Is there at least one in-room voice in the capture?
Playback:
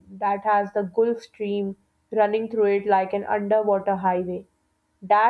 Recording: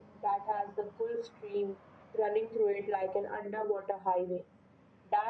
No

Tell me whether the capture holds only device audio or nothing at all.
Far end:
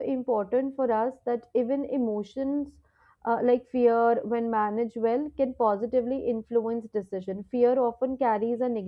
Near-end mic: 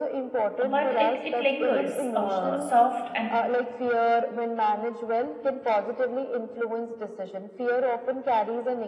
No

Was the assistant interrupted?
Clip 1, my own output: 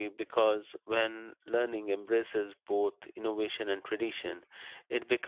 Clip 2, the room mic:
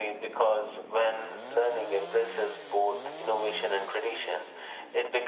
No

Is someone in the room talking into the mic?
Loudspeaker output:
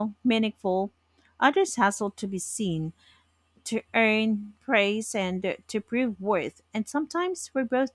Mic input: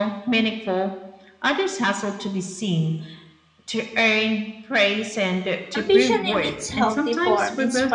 Yes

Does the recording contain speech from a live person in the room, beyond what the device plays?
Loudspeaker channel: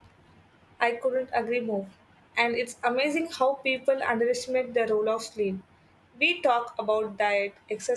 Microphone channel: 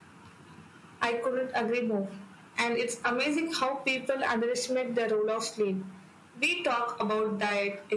No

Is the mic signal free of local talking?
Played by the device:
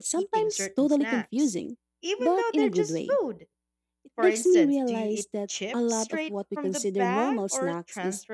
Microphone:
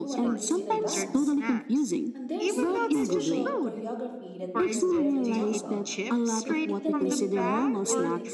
No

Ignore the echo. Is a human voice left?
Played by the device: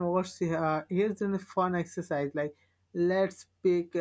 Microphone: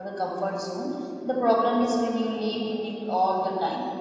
Yes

